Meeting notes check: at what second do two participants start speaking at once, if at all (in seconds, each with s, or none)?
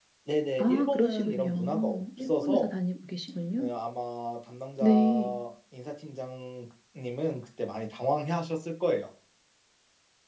0.6 s